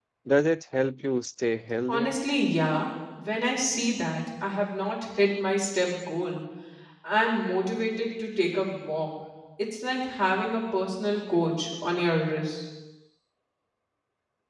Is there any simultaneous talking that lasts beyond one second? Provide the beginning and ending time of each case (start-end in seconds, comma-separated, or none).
none